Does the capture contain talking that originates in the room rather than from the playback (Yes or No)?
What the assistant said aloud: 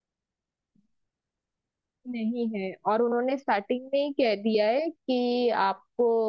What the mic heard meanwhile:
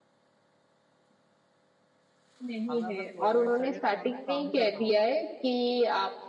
Yes